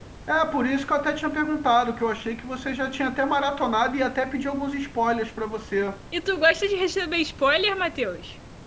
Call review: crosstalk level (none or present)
none